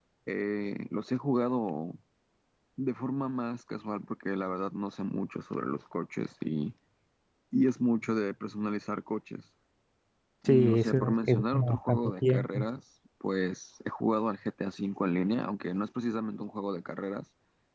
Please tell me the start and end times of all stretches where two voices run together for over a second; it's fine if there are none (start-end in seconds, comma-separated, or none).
10.4-12.7